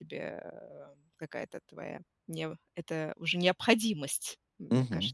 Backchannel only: No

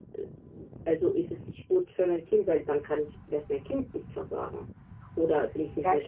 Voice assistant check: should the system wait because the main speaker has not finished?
Yes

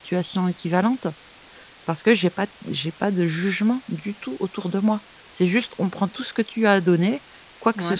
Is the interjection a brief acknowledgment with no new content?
Yes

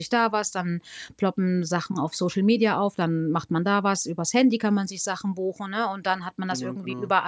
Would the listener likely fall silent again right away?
Yes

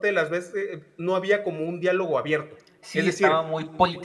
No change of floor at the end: No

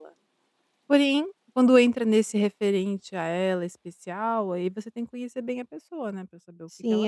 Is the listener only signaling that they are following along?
No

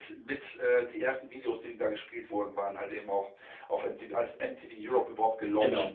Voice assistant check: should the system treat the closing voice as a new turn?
Yes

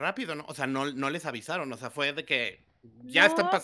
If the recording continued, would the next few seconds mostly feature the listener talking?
Yes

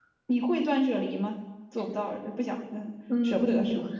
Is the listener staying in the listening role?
No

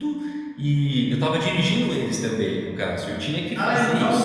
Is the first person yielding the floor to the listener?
Yes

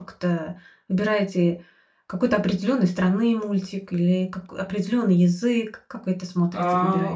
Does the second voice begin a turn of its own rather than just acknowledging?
Yes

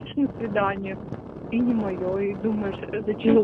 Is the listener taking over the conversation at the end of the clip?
Yes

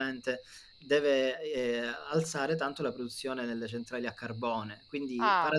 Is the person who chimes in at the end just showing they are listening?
Yes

